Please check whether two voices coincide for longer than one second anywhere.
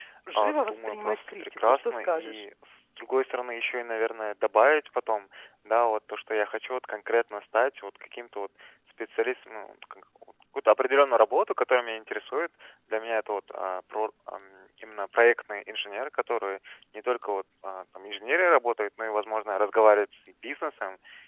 Yes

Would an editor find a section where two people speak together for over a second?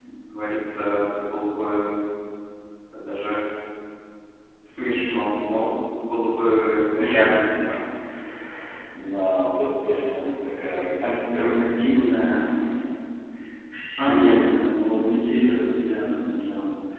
No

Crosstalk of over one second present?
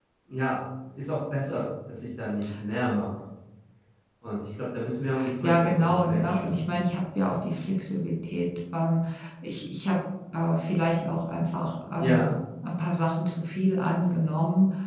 Yes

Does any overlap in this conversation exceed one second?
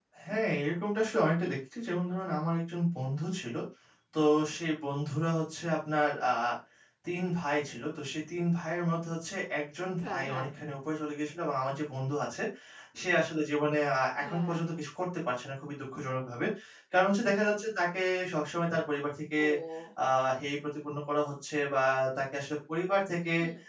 No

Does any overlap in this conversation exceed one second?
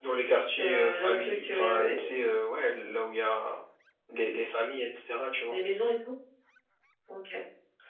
Yes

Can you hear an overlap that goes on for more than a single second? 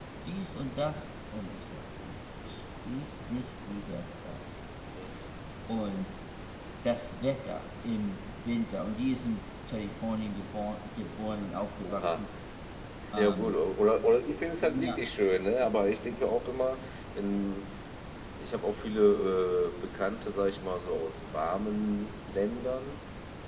No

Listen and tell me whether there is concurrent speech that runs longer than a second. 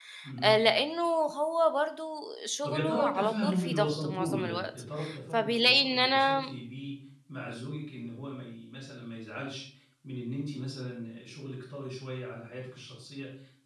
Yes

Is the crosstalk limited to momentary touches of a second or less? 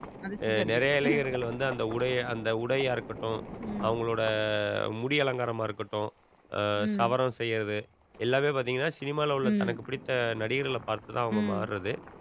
Yes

